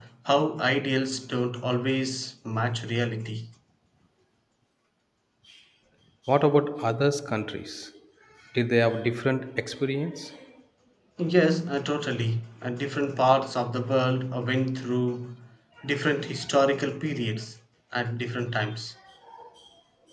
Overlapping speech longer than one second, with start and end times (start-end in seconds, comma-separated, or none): none